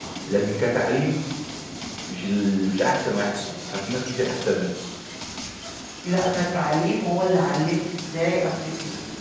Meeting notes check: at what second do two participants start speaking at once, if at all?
none

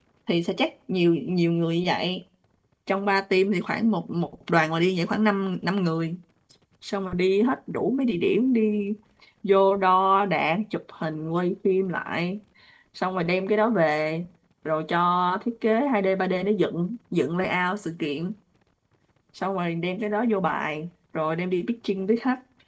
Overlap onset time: none

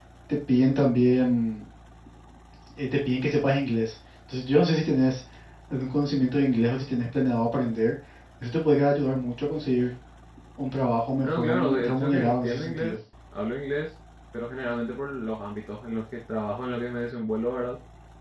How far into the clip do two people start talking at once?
11.2 s

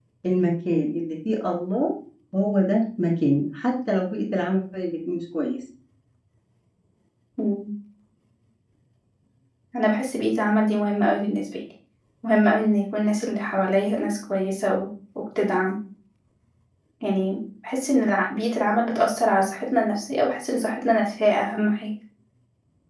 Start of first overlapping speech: none

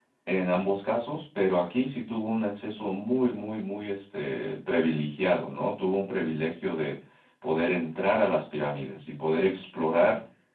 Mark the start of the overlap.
none

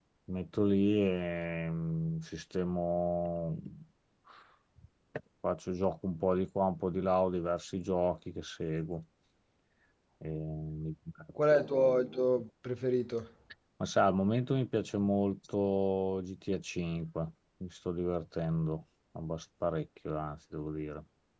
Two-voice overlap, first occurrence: none

